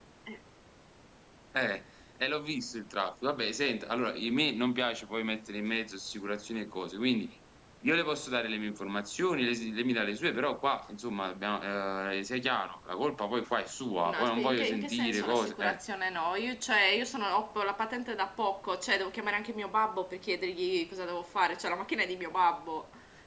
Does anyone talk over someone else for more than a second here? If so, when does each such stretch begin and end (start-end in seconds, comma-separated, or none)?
14.1-15.8